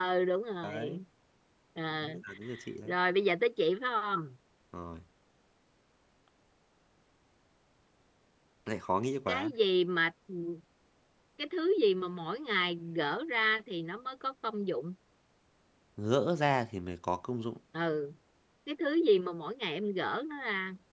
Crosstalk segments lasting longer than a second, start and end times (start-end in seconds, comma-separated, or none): none